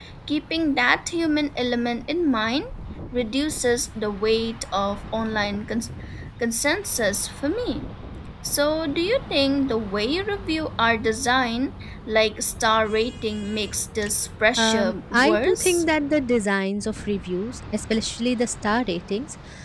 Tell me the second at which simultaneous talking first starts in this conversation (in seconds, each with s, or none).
14.6 s